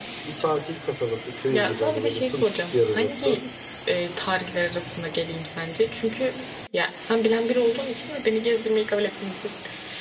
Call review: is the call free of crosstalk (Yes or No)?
No